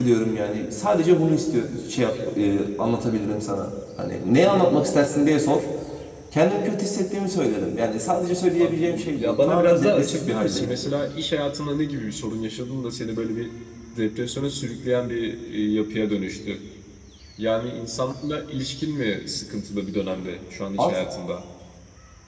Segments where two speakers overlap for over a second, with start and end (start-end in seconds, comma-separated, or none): 8.6-10.7